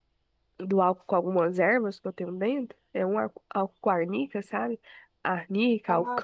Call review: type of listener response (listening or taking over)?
listening